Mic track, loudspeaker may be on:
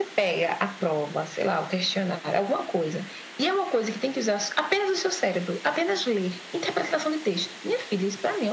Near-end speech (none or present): none